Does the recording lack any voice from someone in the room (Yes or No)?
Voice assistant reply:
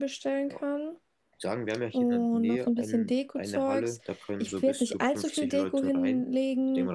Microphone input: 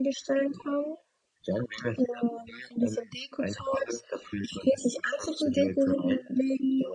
Yes